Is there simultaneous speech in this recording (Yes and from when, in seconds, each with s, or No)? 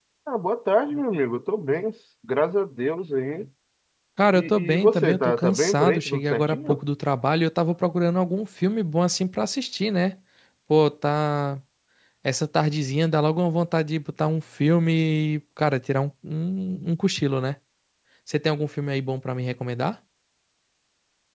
Yes, from 4.3 s